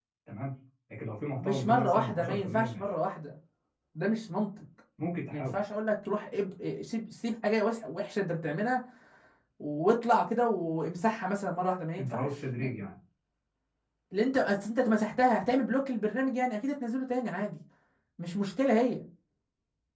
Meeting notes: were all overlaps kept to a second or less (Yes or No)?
No